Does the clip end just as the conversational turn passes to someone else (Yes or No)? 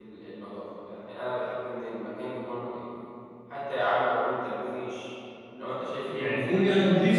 Yes